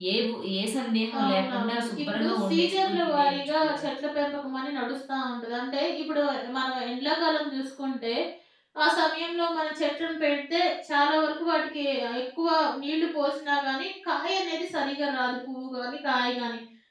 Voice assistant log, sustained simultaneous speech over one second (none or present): present